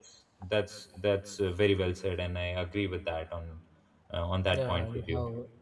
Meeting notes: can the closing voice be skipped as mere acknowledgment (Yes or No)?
No